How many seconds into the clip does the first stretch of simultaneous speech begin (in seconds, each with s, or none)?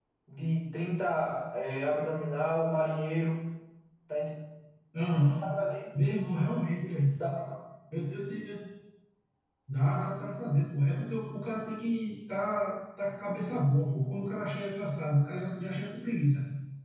none